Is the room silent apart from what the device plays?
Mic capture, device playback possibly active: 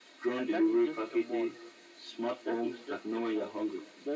Yes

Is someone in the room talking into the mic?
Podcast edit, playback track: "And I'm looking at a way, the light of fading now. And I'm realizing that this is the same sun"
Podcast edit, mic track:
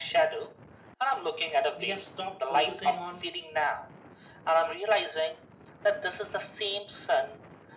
Yes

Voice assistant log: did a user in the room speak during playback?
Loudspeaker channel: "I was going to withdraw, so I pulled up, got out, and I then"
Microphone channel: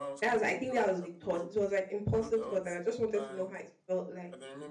Yes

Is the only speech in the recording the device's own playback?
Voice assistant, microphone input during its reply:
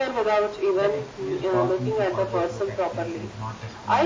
No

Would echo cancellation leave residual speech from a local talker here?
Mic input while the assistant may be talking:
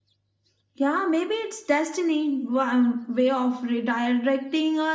No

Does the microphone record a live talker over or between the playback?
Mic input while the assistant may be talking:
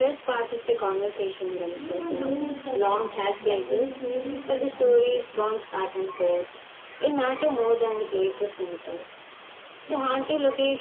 Yes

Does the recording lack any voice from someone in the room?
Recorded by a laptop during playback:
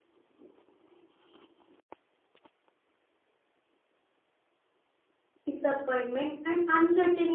No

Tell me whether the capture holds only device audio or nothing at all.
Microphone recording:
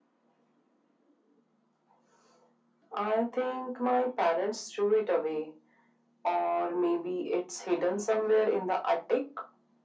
Yes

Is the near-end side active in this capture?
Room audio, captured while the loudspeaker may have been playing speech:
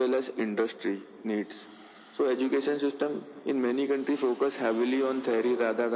No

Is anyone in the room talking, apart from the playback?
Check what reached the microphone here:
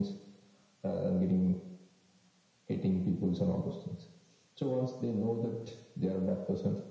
No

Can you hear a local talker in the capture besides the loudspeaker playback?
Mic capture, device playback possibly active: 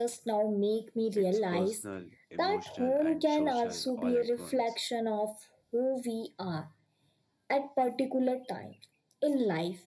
Yes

